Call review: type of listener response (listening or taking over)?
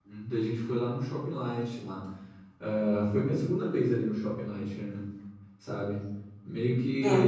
listening